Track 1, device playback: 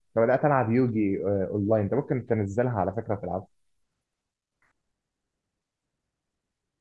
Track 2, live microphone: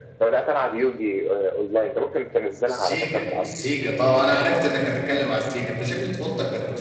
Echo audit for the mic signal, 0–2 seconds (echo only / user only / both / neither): echo only